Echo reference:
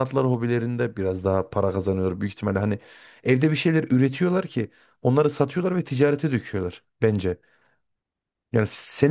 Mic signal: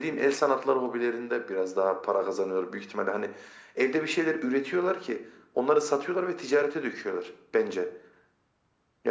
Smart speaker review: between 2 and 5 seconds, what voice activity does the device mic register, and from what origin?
echo only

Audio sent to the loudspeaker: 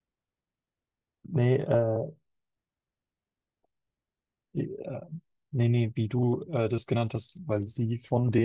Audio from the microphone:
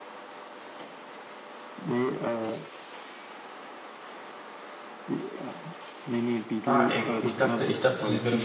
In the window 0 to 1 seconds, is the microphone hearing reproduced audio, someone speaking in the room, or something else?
neither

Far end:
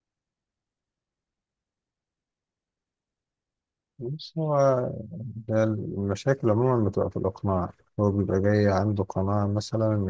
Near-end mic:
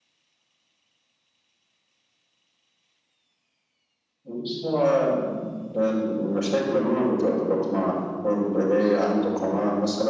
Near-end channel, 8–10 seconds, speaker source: echo only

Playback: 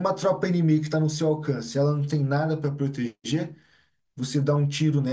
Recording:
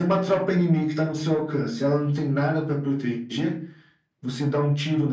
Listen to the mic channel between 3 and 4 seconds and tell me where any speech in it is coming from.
echo only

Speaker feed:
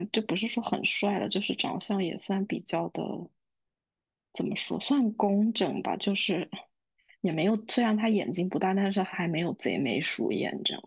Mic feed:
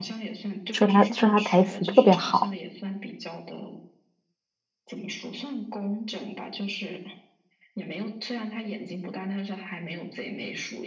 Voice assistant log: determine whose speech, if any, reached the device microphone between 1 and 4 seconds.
both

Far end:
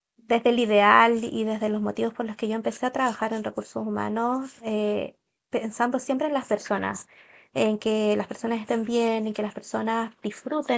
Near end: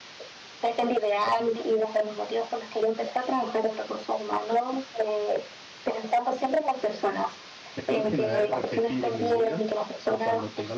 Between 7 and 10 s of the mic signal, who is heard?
both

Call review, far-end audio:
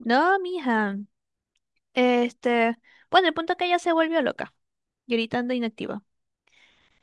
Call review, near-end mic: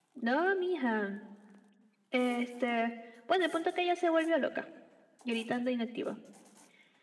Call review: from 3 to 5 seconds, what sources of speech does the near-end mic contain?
echo only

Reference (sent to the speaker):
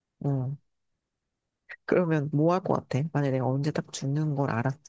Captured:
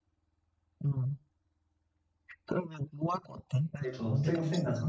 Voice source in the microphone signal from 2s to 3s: echo only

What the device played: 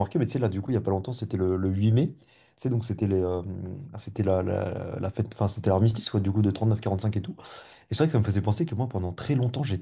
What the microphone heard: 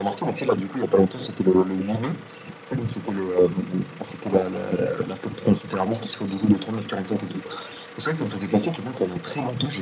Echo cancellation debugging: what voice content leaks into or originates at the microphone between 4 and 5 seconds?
echo only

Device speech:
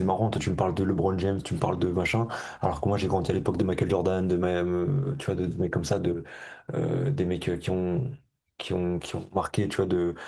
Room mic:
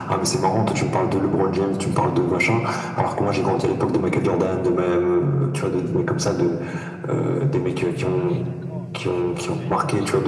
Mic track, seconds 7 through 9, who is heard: both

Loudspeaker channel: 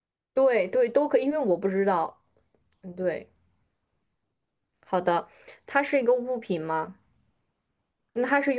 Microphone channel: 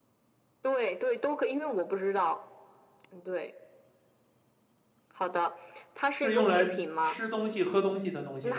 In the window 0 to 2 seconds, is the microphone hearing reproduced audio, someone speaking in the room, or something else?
echo only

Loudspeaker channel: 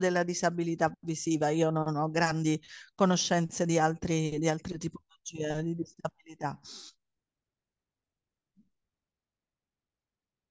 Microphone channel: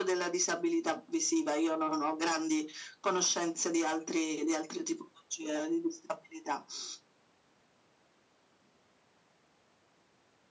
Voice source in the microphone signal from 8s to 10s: neither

